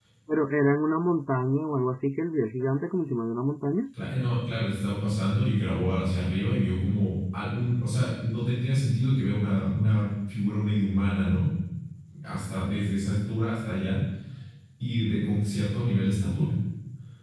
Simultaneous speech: No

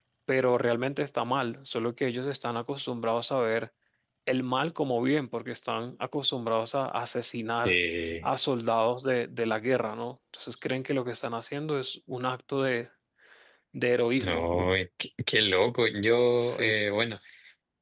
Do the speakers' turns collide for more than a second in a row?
No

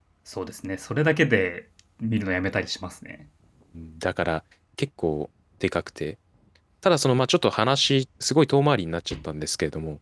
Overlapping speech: No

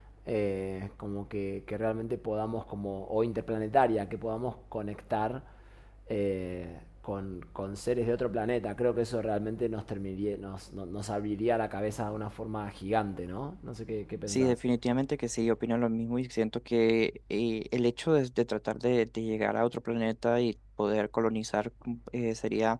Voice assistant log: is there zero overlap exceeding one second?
Yes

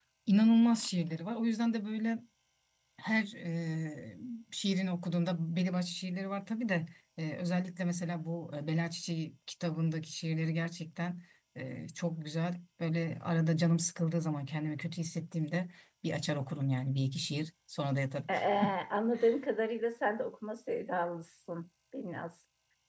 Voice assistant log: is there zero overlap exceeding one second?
Yes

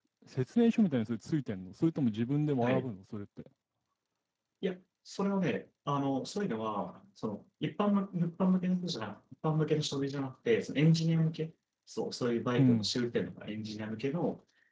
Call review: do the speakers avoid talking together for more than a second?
Yes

